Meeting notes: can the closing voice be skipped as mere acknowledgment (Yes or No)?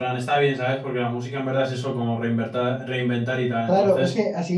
No